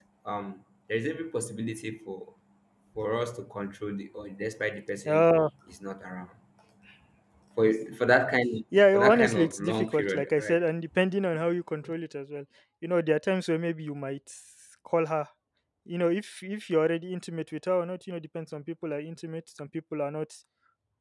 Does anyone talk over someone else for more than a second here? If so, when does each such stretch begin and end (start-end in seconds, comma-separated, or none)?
8.9-10.6